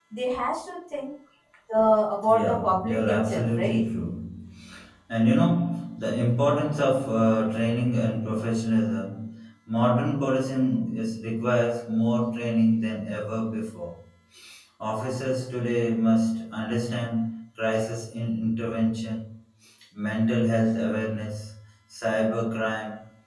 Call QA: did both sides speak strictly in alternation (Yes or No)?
No